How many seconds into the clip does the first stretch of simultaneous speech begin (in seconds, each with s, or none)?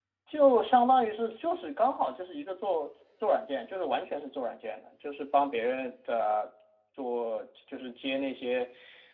none